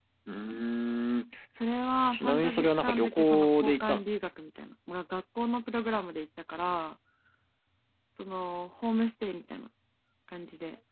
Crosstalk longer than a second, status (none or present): present